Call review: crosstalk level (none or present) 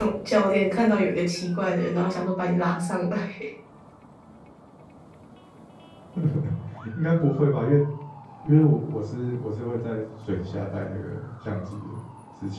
none